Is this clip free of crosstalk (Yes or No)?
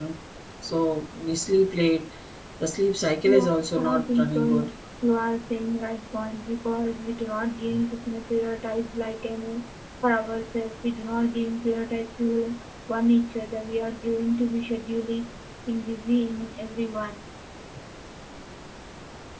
No